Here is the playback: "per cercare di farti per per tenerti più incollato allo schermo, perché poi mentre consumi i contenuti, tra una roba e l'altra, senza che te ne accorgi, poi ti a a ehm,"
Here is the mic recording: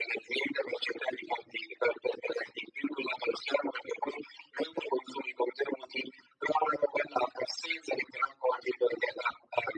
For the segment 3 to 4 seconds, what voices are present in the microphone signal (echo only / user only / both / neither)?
echo only